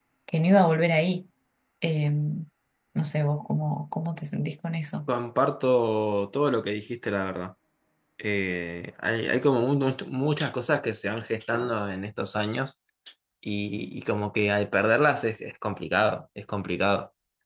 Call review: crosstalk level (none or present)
none